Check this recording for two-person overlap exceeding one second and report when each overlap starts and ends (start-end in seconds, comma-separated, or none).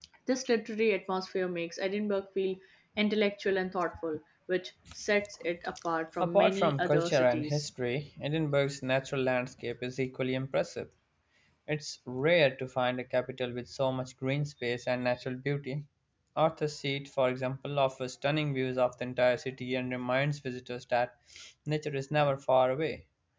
6.2-7.7